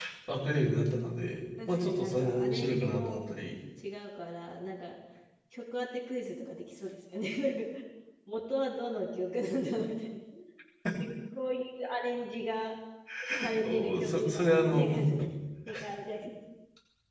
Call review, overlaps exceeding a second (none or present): present